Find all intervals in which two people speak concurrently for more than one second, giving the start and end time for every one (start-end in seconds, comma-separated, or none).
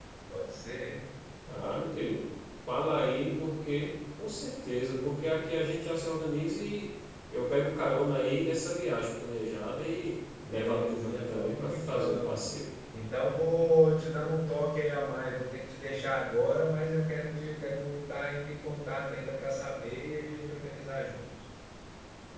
10.5-12.5